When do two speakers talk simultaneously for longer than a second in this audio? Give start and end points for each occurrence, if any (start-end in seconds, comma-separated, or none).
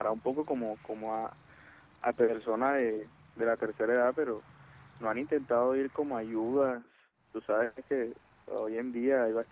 none